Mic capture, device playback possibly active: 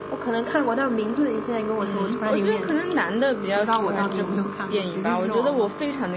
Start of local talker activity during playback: 1.8 s

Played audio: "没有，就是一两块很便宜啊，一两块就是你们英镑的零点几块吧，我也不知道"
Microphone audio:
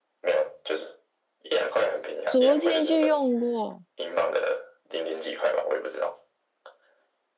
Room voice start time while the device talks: 2.3 s

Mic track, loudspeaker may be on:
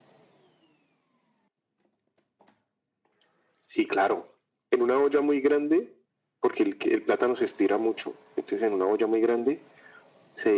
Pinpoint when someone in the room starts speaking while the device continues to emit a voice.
none

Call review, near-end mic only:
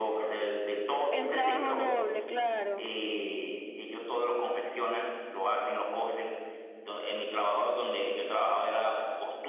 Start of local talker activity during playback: 1.1 s

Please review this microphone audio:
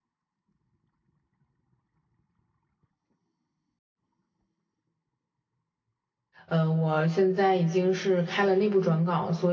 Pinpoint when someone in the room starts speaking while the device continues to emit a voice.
6.5 s

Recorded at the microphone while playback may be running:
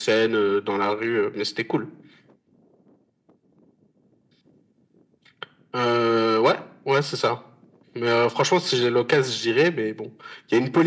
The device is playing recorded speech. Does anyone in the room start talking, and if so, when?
none

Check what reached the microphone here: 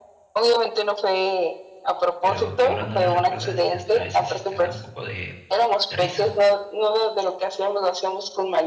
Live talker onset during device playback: 2.2 s

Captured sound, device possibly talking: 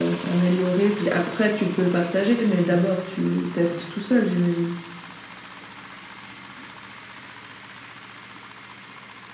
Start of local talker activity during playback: none

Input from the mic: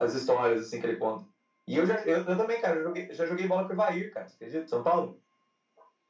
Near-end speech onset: none

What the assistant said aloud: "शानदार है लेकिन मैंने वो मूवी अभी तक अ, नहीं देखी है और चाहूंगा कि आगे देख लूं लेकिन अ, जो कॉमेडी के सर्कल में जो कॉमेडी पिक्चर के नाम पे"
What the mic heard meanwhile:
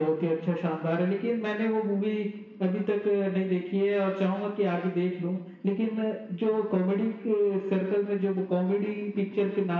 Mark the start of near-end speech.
none

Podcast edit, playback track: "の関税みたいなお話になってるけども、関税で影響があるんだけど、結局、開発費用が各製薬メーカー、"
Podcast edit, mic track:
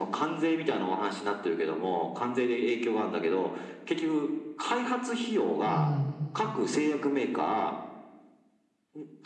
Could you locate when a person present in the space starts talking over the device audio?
5.6 s

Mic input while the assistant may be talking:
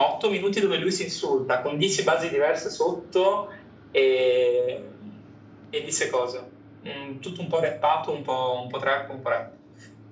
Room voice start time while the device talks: none

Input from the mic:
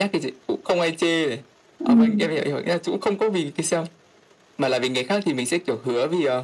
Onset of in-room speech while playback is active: 1.8 s

